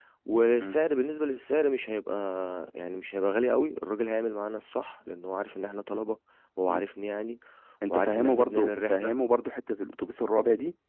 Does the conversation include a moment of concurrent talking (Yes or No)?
Yes